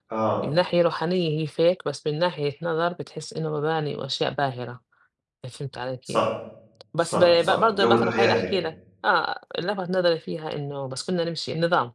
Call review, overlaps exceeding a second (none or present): present